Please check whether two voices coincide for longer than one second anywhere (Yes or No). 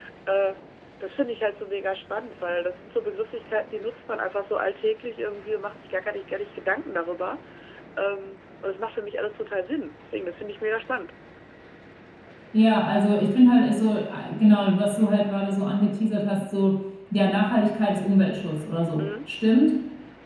No